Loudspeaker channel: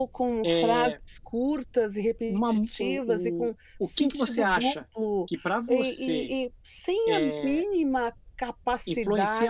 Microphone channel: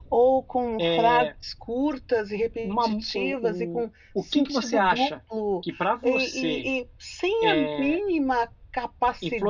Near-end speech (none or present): none